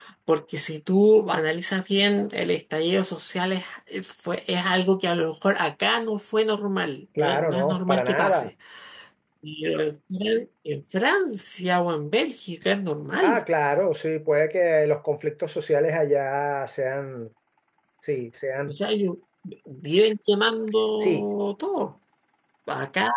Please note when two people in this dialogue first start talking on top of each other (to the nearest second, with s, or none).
7 s